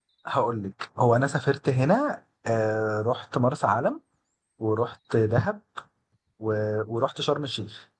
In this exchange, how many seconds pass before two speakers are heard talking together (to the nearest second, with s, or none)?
none